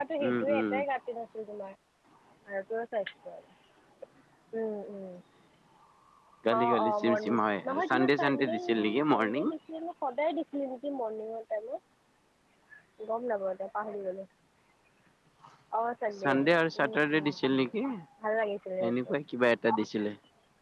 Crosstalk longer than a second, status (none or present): present